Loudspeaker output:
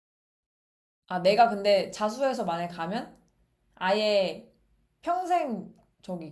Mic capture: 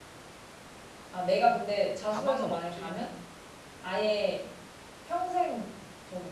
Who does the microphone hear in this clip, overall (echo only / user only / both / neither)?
both